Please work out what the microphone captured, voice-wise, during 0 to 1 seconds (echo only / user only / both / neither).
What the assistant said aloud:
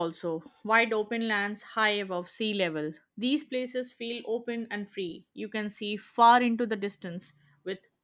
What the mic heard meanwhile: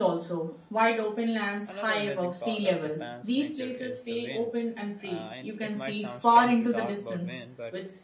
echo only